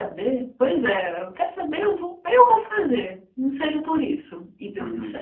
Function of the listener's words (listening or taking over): taking over